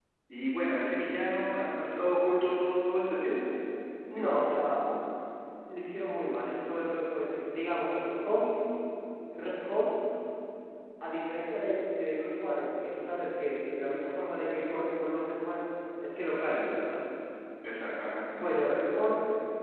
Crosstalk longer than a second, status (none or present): none